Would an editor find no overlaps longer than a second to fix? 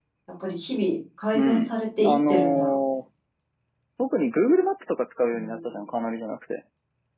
No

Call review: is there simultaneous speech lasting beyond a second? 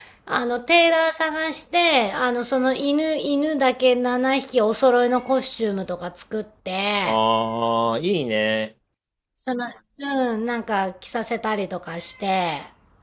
No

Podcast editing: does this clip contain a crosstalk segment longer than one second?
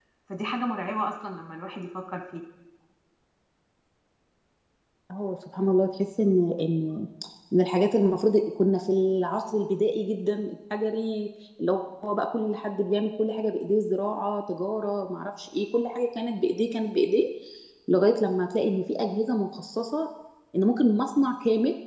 No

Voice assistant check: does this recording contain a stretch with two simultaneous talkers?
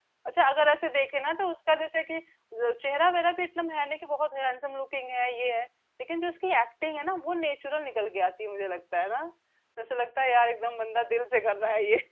No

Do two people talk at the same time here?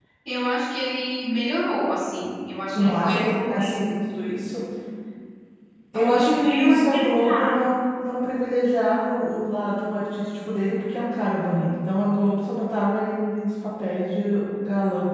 Yes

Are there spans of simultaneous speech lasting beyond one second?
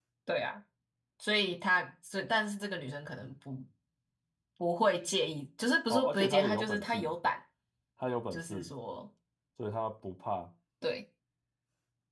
Yes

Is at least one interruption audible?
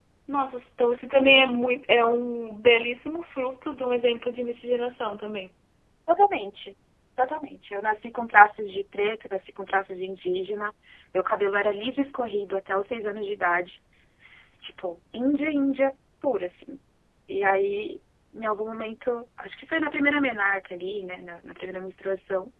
No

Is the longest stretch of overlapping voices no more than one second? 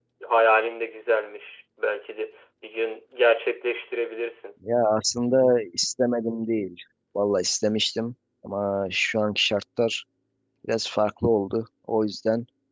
Yes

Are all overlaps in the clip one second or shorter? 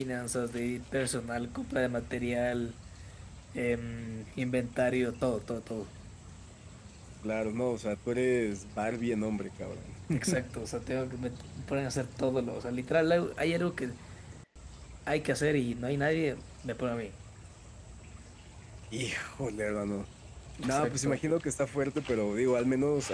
Yes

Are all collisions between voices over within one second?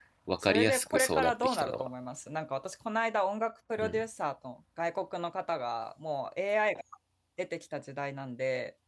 No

